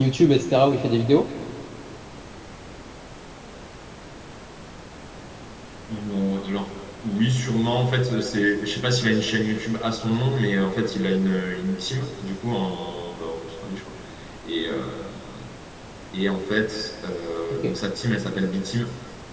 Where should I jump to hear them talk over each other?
none

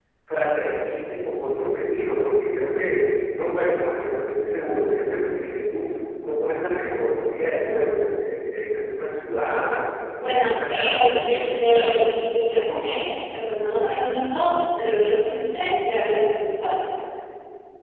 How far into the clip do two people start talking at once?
10 s

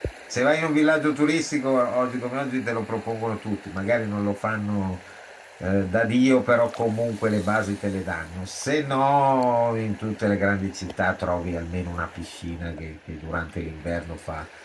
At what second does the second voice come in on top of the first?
none

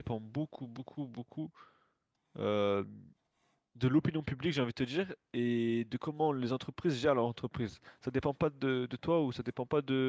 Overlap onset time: none

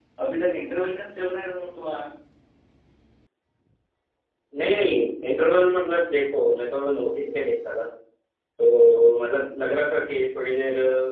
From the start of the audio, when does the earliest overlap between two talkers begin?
none

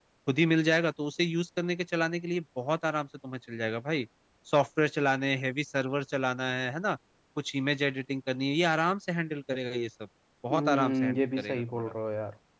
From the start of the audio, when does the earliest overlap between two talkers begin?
11 s

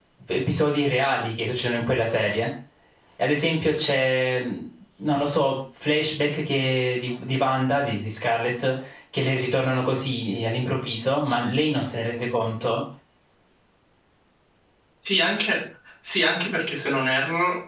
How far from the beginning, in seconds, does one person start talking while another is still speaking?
none

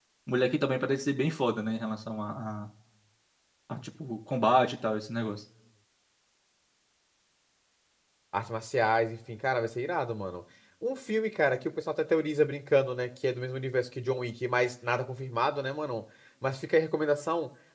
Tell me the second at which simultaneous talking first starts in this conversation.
none

